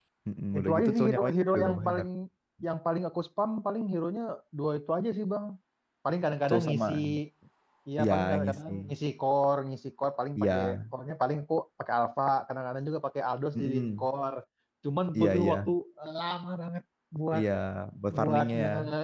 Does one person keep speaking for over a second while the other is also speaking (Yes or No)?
Yes